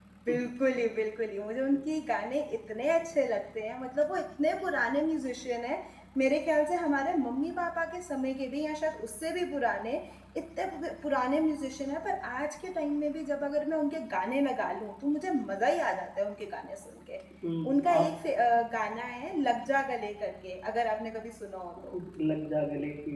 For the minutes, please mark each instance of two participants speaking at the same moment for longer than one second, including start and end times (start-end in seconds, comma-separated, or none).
none